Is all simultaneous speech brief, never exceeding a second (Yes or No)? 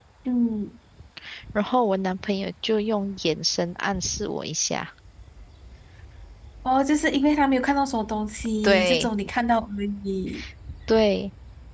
Yes